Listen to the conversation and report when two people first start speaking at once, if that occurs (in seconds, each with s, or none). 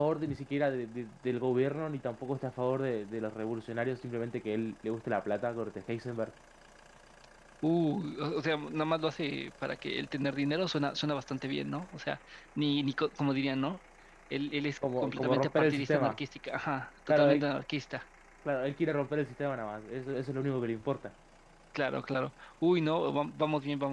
15.0 s